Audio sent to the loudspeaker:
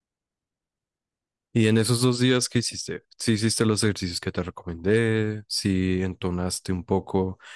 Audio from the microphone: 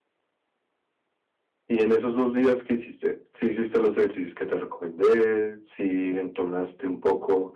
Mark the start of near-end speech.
none

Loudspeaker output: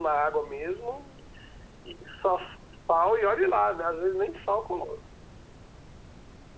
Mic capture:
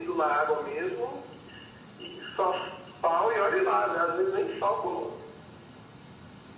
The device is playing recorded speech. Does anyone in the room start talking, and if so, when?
none

